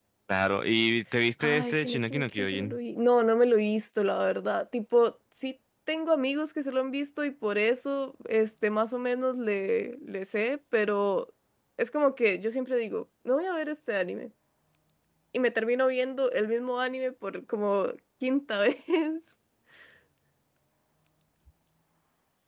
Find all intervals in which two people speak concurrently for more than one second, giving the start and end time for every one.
1.4-2.8

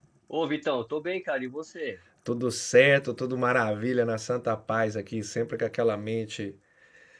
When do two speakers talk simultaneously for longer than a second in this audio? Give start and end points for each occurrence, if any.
none

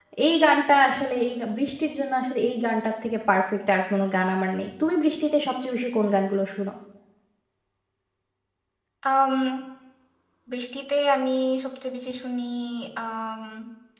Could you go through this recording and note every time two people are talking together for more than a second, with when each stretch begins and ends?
none

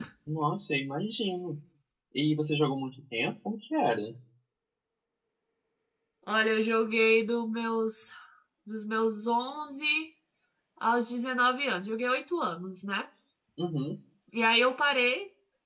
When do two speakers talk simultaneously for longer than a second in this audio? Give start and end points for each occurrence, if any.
none

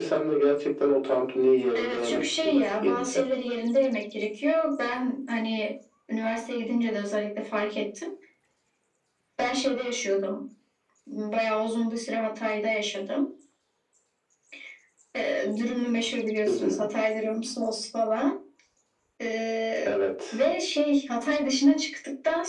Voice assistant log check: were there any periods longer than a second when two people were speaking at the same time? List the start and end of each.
1.7-3.3

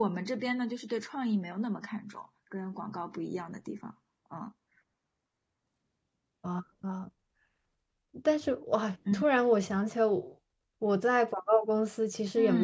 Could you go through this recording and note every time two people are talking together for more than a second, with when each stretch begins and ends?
none

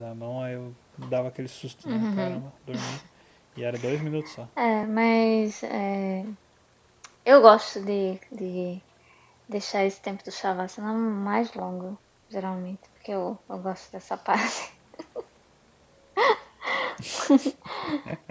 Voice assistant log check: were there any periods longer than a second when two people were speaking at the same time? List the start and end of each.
none

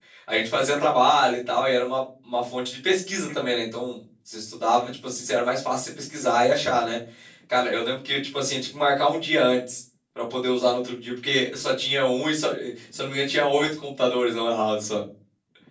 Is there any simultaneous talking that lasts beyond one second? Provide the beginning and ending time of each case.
none

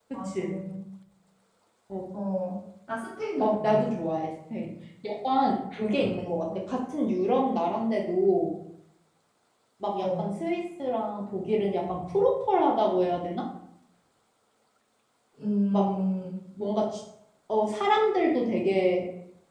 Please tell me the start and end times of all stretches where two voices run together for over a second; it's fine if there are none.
none

